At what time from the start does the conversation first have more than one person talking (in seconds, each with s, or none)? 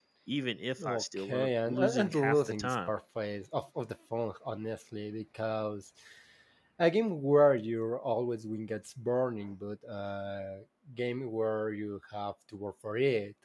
0.8 s